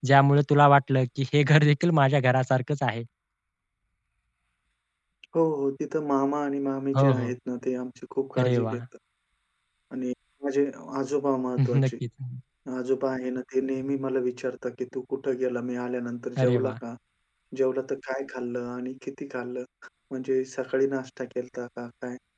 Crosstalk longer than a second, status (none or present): none